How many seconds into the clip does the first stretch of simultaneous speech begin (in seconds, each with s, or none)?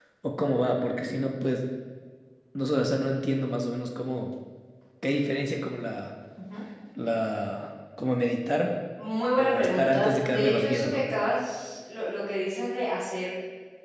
9.4 s